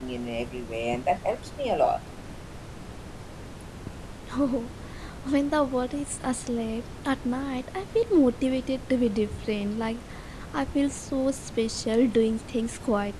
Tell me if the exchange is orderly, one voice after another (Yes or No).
Yes